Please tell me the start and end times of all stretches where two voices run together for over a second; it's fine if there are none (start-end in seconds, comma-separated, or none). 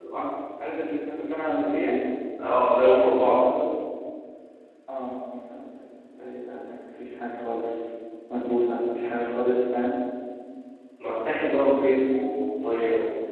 none